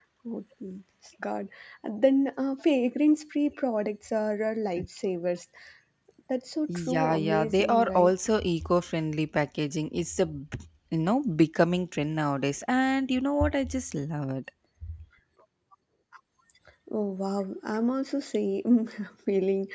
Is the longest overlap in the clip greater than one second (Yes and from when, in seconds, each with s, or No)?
Yes, from 6.8 s